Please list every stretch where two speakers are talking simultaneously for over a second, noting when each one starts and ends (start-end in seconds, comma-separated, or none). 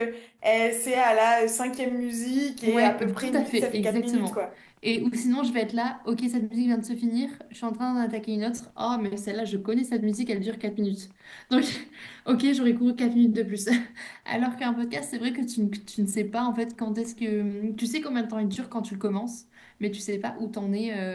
2.6-4.5